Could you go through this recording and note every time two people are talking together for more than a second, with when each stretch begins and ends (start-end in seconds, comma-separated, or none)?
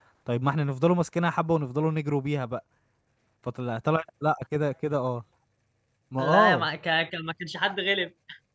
none